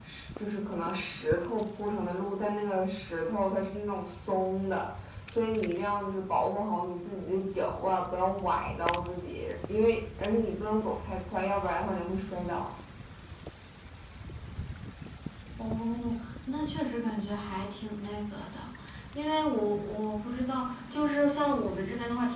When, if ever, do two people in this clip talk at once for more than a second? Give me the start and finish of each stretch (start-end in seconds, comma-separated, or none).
none